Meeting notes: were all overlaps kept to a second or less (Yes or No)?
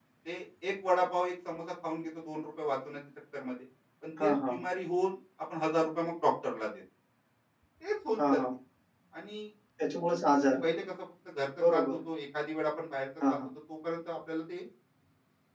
Yes